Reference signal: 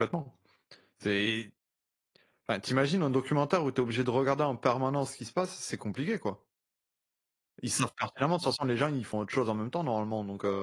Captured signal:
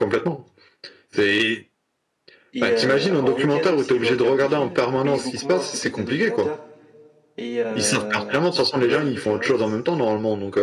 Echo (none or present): present